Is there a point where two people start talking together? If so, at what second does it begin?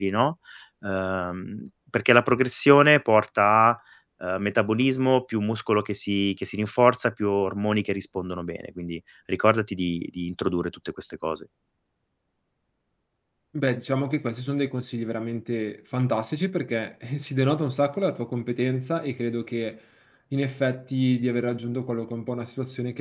none

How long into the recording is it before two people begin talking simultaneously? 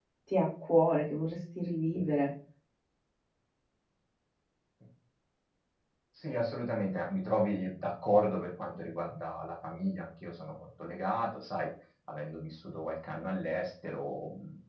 none

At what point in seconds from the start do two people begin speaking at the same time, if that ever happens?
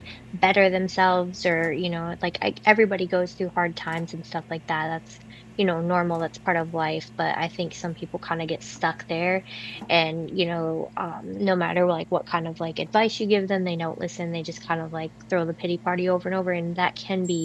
none

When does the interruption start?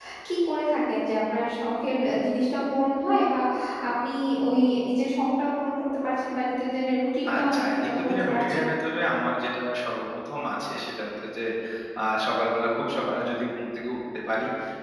7.3 s

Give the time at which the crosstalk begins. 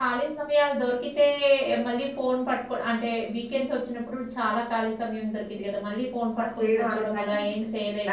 6.4 s

